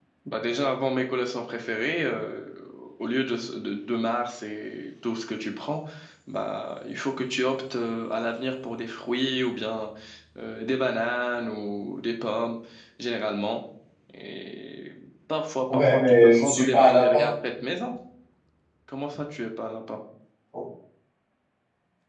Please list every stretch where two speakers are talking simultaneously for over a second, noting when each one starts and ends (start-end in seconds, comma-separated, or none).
15.7-17.3